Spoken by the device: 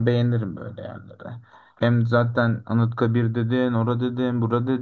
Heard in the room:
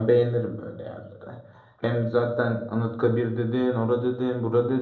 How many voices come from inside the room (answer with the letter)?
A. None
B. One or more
A